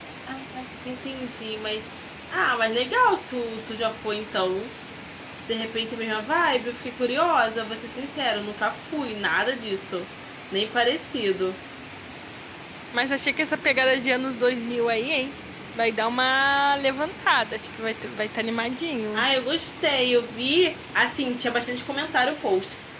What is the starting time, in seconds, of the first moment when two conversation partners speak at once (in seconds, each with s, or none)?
none